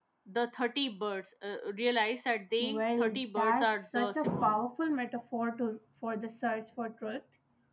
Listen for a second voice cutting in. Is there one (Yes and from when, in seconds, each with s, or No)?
Yes, from 2.6 s